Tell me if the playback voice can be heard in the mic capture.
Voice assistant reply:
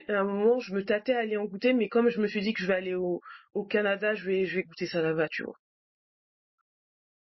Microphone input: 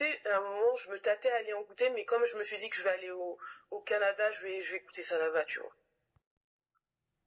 Yes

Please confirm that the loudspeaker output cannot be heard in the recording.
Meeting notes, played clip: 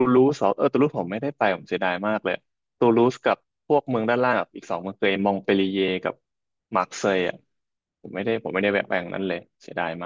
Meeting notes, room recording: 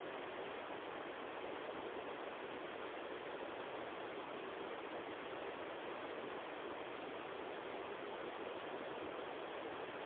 Yes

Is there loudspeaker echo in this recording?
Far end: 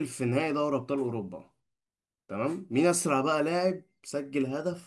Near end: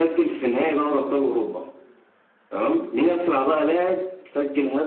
Yes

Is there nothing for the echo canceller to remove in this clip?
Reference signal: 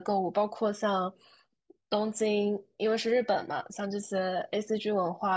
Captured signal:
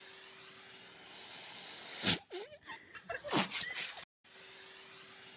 Yes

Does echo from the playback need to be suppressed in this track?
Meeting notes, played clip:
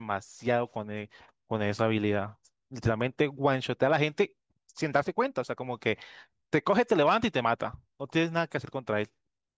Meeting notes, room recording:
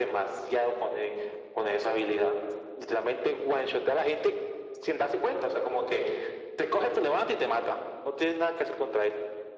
Yes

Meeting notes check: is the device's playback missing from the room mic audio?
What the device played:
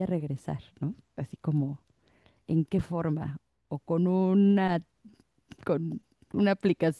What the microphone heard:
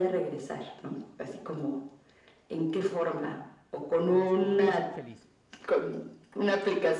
No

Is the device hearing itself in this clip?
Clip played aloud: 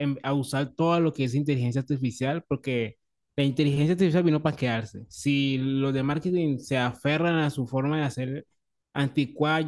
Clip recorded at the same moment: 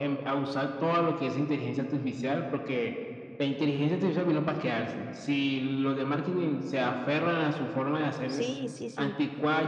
Yes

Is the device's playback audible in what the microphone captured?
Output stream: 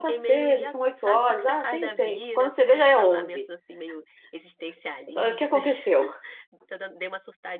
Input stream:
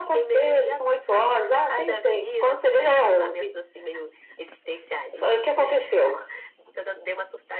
Yes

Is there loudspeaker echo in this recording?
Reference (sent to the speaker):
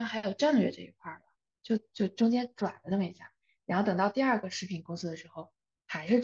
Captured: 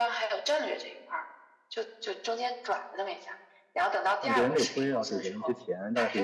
Yes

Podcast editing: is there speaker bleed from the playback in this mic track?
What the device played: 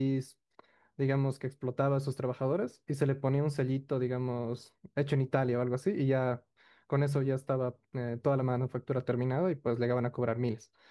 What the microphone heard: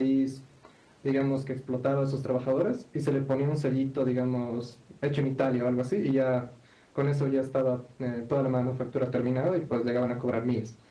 Yes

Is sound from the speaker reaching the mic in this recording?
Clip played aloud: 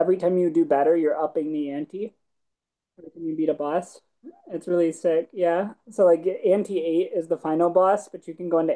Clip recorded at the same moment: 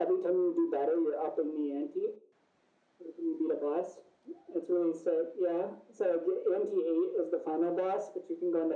Yes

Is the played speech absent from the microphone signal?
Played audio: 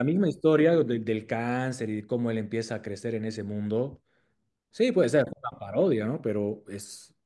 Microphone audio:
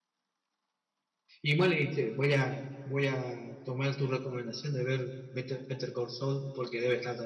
Yes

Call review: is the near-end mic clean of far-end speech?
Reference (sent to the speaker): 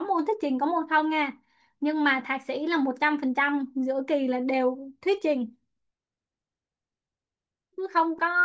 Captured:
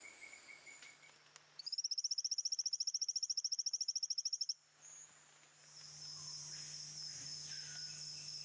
Yes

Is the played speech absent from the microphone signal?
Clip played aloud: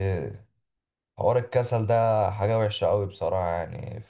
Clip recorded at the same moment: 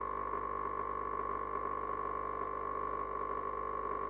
Yes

